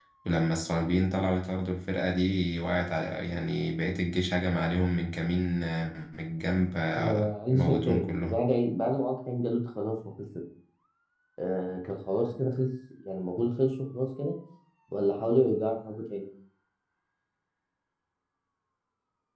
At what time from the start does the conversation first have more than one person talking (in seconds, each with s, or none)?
7.0 s